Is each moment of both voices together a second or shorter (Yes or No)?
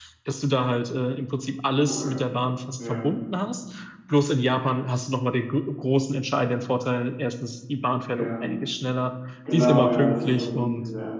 No